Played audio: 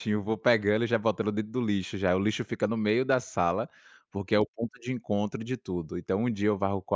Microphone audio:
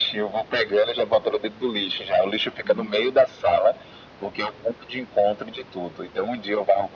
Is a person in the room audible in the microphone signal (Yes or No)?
Yes